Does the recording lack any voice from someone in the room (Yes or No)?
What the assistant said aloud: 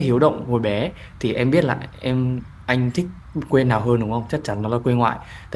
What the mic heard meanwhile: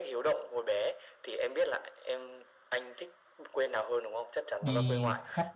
No